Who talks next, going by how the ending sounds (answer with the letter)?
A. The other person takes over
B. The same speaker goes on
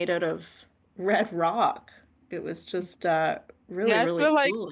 A